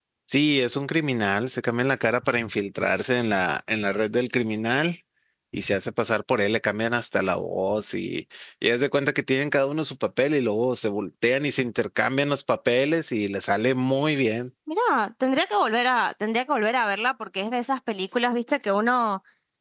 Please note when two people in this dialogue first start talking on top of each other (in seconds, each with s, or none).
none